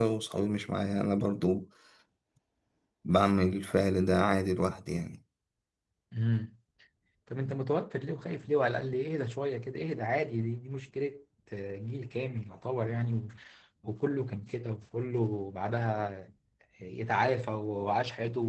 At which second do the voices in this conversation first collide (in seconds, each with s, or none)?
none